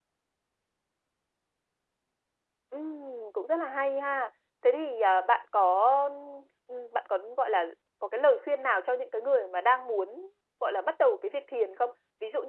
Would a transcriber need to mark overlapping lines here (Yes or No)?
No